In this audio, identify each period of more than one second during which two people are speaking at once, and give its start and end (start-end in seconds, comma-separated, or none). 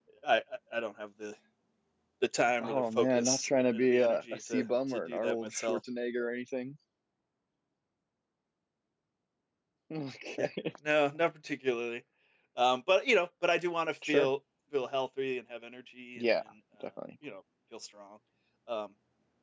2.6-5.8